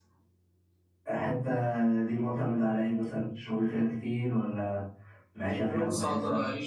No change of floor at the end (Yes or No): No